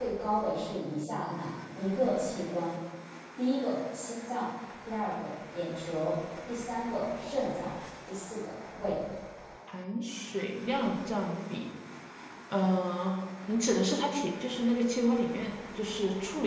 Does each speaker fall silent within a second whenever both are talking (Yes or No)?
Yes